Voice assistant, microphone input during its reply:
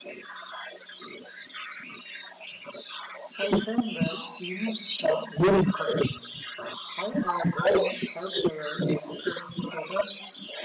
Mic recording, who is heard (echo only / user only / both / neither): echo only